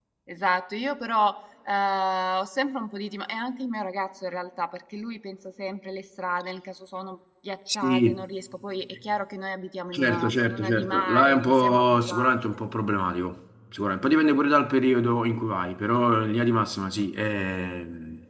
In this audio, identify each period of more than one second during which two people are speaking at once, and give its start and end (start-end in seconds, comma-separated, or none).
9.9-12.4